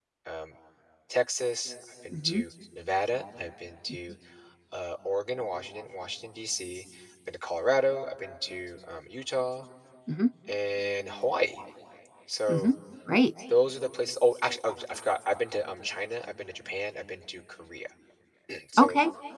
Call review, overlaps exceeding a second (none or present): none